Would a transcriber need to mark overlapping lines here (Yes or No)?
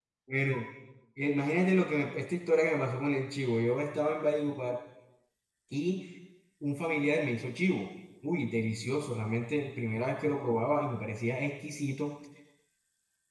No